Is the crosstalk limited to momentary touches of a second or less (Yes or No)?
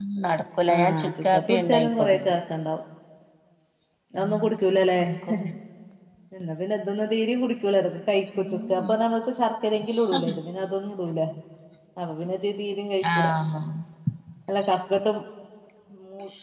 No